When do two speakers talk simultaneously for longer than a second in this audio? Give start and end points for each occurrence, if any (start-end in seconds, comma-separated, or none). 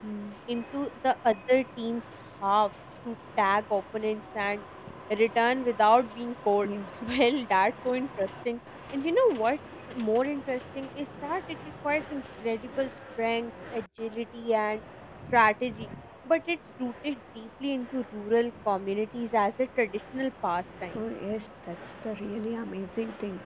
none